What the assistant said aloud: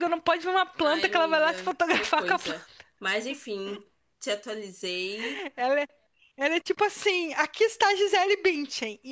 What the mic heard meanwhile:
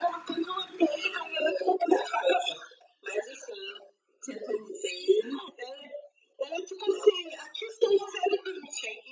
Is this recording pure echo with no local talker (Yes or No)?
Yes